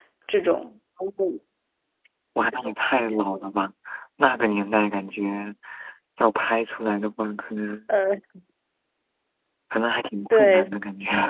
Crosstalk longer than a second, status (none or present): none